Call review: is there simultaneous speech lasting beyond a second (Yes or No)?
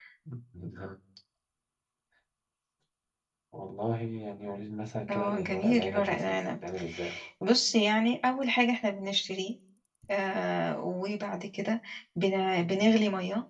Yes